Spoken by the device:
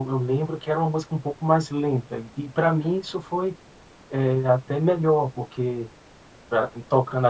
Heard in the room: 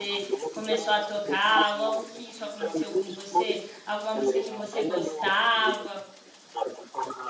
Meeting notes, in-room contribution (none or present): present